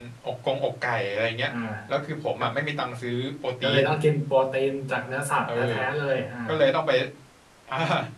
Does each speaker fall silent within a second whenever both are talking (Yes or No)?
Yes